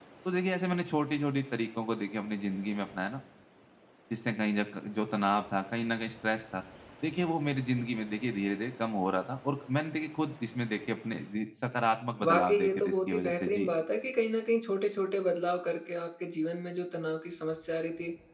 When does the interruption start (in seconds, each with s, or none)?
12.2 s